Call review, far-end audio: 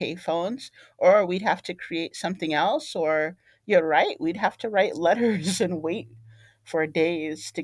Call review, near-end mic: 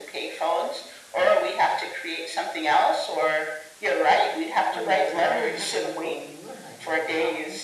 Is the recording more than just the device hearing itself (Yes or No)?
Yes